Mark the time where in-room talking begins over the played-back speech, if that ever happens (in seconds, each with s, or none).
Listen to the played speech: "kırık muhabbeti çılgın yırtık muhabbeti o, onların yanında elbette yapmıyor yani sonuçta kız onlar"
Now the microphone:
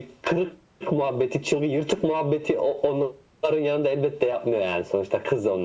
none